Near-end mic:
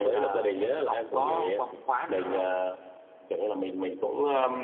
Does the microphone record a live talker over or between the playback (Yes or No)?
Yes